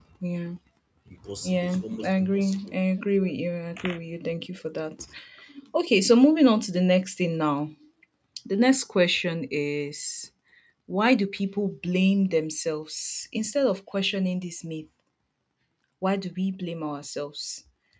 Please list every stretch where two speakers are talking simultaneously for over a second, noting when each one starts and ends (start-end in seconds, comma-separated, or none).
1.4-2.7